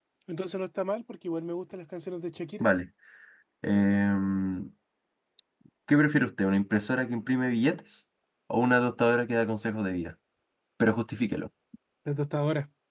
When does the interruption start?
none

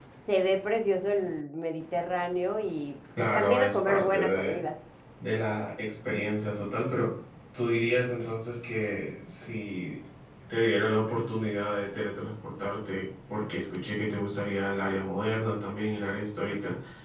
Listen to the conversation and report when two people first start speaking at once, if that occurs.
3.2 s

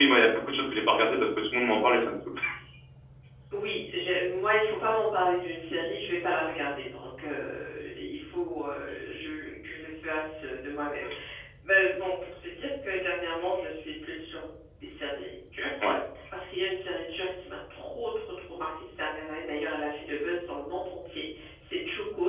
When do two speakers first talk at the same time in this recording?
none

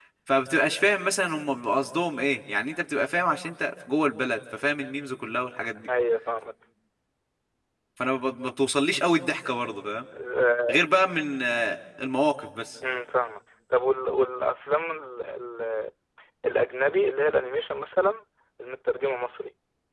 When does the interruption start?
none

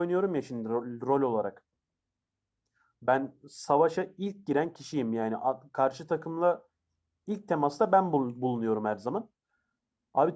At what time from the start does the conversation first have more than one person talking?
none

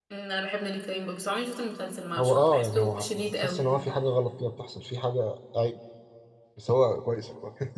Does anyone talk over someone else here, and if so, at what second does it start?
2.2 s

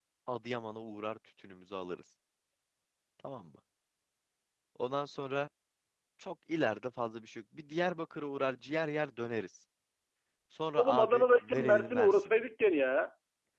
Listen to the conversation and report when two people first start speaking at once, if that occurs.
10.8 s

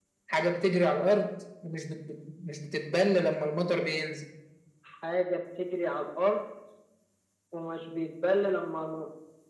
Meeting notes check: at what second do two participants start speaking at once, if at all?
none

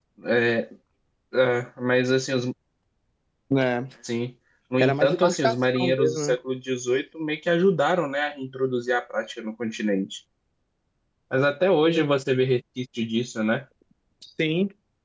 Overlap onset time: 4.8 s

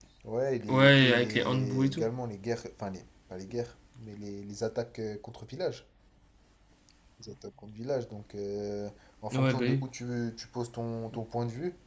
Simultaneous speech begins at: 0.7 s

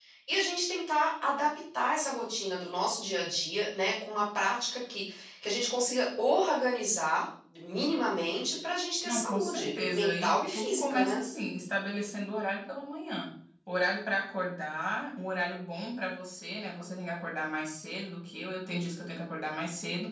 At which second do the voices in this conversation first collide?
9.1 s

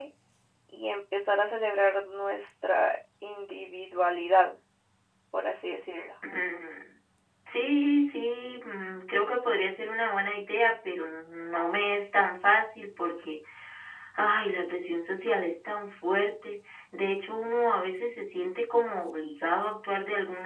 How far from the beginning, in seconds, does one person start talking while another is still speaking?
none

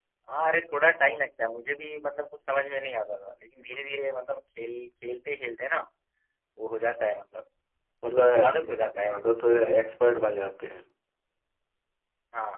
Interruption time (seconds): 8.5 s

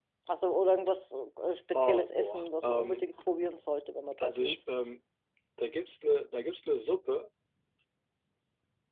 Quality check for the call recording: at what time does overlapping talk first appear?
1.7 s

